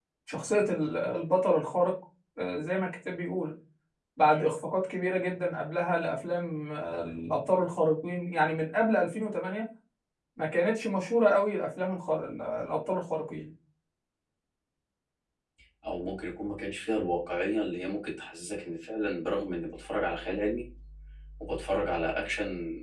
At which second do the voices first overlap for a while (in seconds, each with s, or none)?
none